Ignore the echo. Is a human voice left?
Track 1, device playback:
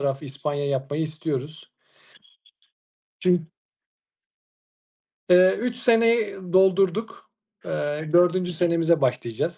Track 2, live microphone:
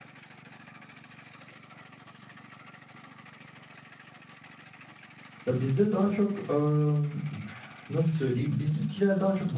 Yes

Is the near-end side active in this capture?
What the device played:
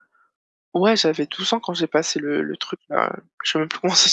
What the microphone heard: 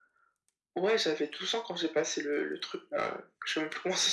No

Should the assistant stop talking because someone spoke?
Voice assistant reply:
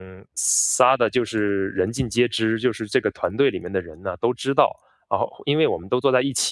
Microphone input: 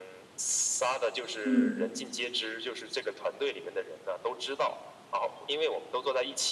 Yes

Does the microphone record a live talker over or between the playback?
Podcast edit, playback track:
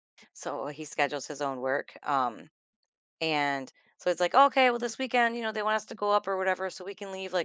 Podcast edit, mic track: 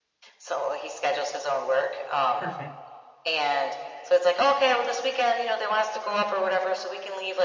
Yes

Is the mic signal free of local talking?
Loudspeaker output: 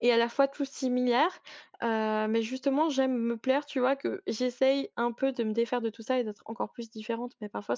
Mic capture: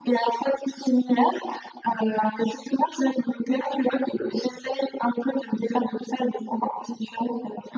Yes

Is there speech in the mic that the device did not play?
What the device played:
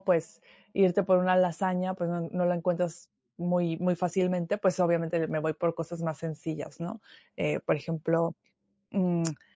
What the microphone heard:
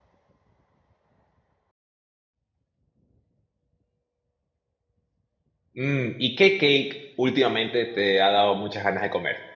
Yes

